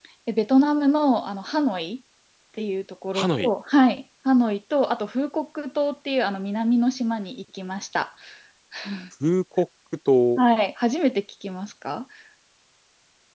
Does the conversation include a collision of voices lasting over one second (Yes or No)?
No